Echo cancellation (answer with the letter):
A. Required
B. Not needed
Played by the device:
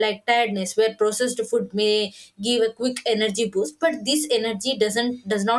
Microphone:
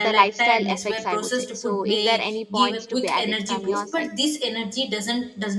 A